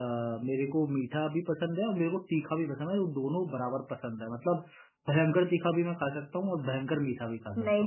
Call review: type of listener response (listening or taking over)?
taking over